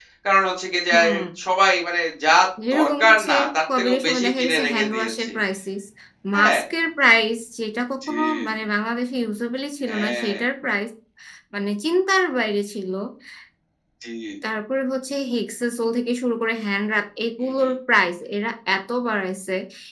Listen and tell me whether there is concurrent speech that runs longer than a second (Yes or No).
Yes